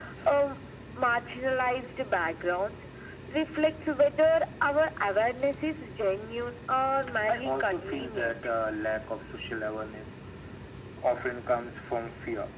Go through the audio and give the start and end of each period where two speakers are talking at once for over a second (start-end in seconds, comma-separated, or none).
7.3-8.5